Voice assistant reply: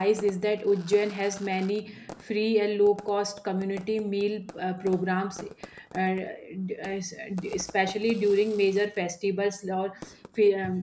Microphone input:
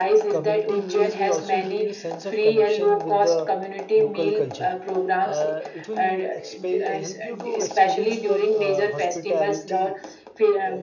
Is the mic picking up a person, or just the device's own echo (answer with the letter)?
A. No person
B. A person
B